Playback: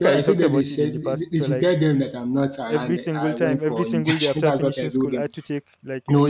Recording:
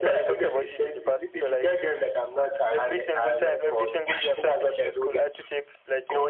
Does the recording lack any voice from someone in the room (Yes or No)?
Yes